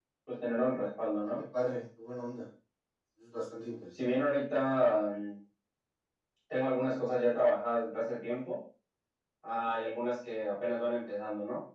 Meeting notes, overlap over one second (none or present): none